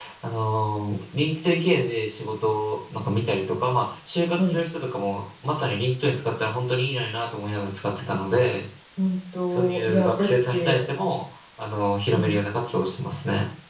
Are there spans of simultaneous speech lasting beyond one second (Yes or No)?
Yes